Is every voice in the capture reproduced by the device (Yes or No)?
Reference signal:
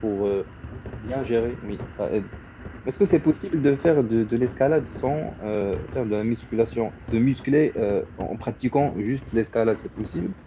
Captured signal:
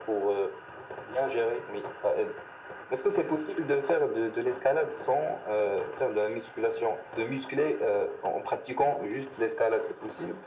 Yes